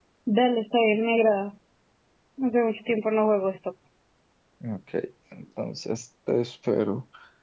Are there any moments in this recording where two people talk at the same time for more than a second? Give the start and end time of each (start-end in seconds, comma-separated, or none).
none